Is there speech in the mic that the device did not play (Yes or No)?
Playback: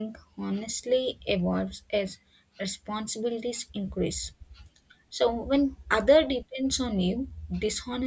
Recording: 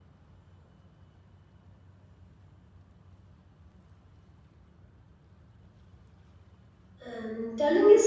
Yes